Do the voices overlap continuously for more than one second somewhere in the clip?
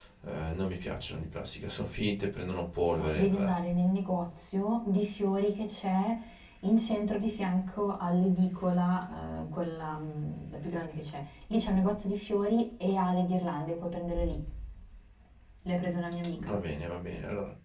No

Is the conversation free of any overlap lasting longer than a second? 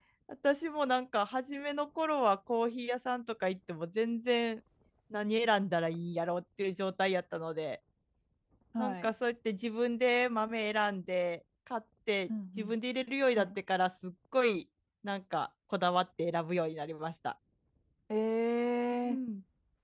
Yes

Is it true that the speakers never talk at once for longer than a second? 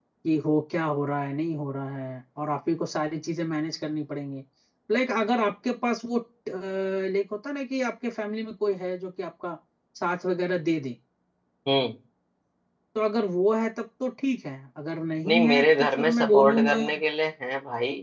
No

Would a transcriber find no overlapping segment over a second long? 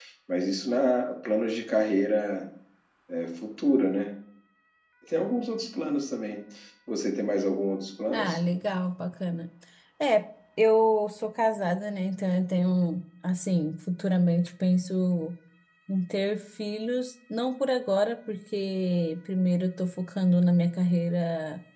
Yes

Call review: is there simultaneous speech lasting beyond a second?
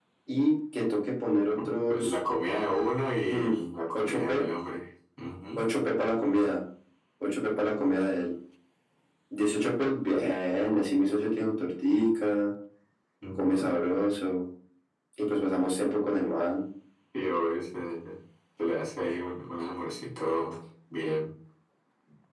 No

